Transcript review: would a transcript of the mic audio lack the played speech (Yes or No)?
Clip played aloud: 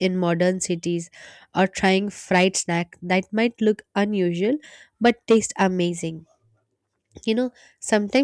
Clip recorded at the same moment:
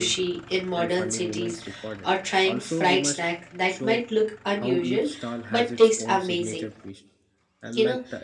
No